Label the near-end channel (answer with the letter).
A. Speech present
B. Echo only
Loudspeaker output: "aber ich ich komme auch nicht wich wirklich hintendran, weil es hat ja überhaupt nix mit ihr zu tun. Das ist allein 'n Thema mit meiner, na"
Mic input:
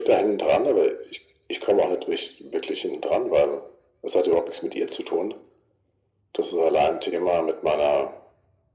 B